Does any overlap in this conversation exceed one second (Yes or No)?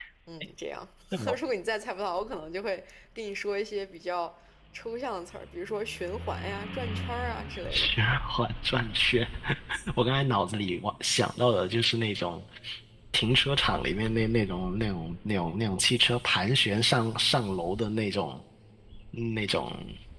No